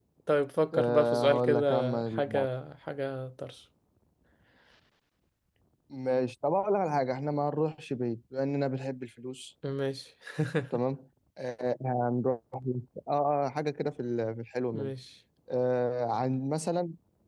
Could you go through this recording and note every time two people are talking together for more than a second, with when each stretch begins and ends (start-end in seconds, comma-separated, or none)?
0.7-2.5